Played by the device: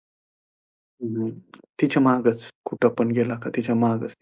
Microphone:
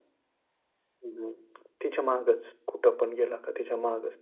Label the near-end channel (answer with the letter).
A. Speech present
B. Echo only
B